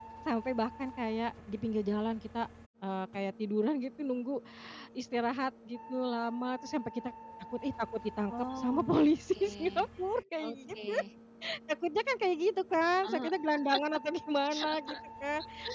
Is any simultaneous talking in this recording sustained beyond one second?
Yes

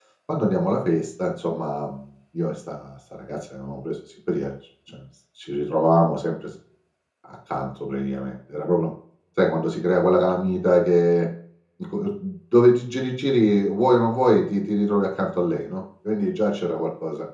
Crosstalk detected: No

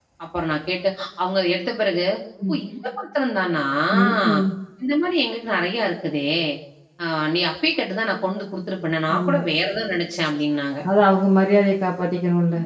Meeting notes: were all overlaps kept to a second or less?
Yes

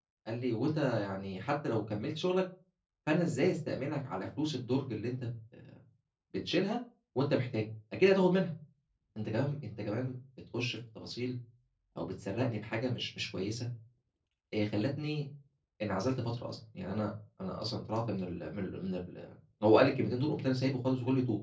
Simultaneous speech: No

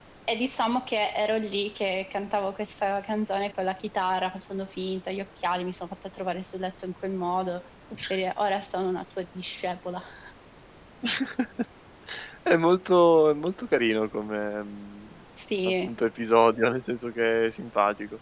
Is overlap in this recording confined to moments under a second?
Yes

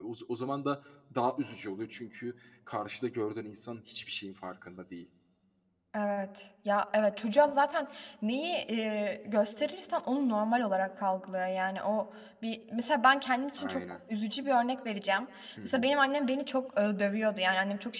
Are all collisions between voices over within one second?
Yes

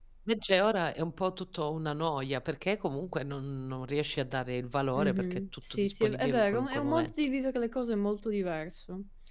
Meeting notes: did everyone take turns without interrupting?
No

